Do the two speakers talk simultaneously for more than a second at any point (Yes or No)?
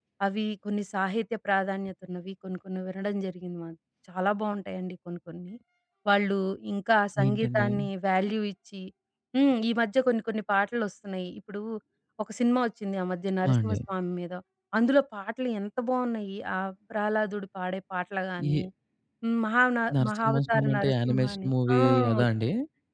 Yes